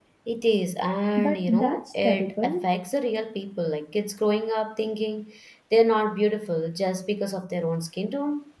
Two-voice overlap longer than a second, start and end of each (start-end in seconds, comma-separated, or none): 1.2-2.7